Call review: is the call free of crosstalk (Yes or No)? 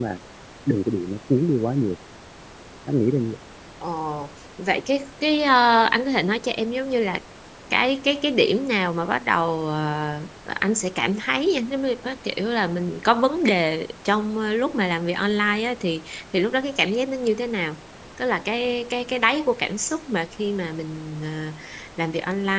Yes